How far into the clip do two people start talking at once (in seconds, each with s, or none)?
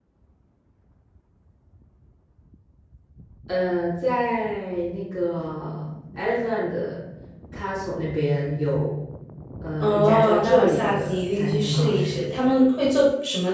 9.8 s